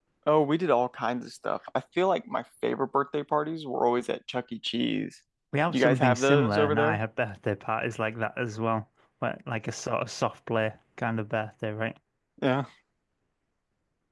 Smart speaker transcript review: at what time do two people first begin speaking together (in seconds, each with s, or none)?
5.7 s